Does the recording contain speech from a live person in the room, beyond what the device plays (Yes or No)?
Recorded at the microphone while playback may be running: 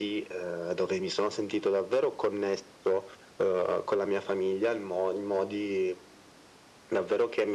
No